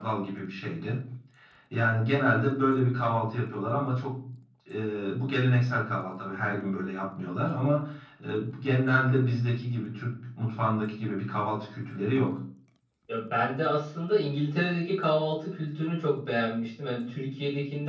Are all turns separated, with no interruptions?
Yes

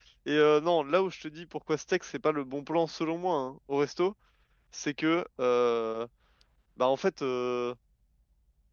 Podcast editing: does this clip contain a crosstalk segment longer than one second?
No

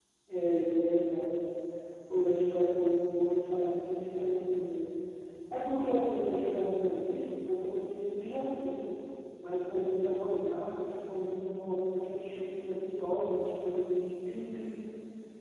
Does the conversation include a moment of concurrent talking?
No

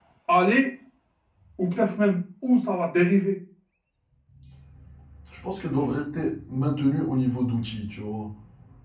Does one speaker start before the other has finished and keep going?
No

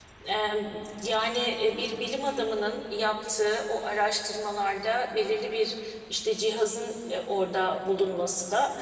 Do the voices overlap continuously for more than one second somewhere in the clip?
No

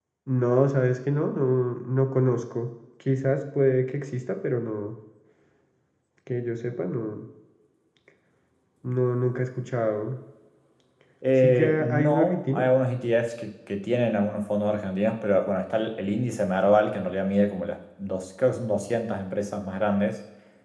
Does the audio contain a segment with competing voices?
Yes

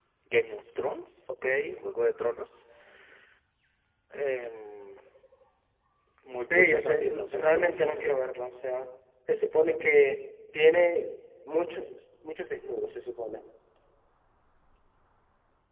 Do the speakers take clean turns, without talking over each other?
No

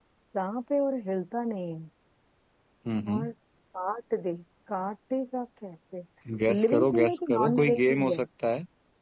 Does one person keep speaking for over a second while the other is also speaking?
Yes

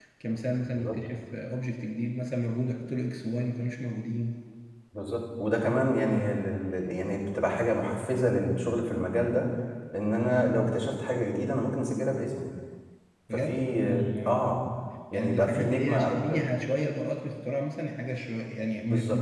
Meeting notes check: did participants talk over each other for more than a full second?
Yes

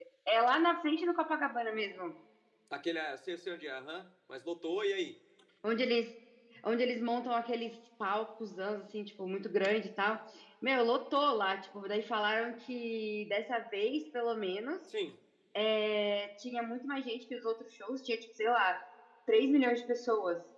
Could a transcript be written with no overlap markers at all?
Yes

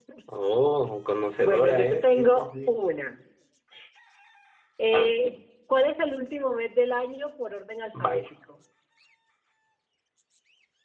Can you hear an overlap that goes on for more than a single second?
Yes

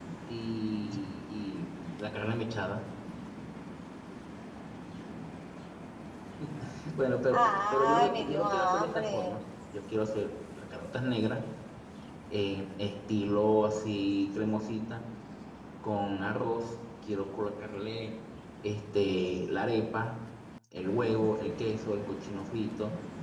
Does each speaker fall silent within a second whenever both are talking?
No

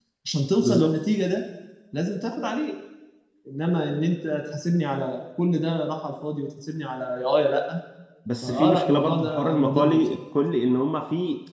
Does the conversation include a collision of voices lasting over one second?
Yes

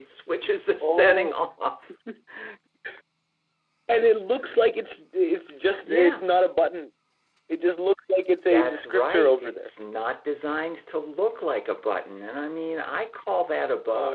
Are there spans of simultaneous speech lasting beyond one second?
Yes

